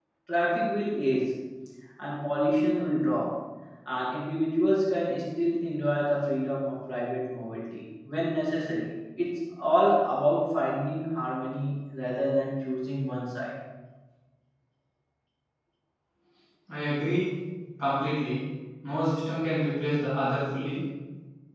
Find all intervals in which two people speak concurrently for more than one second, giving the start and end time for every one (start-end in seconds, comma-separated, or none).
none